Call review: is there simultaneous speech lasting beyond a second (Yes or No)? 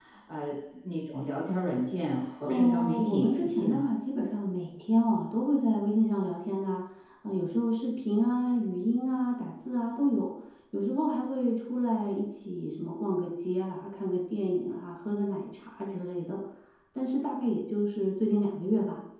Yes